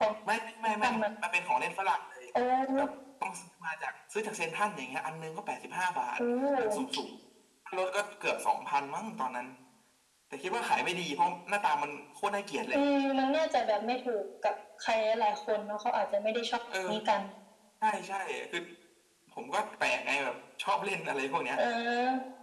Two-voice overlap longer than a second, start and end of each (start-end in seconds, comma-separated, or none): none